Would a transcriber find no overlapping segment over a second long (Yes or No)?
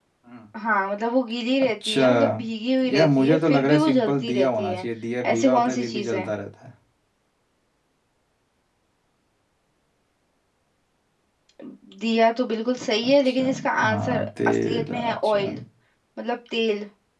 No